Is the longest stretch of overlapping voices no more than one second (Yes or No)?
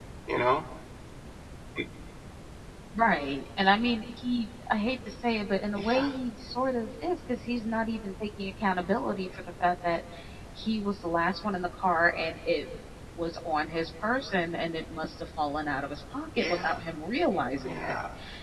Yes